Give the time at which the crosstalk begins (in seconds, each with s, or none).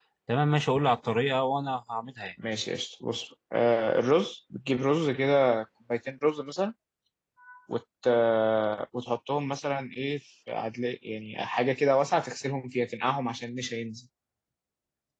none